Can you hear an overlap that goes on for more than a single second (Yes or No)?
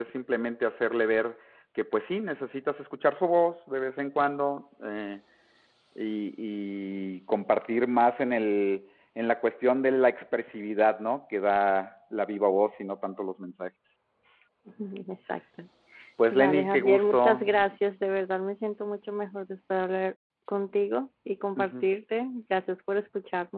Yes